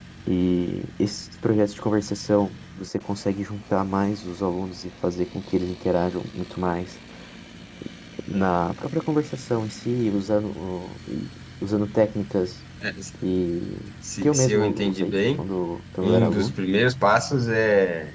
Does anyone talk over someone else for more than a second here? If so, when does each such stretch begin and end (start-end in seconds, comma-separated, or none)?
14.2-15.4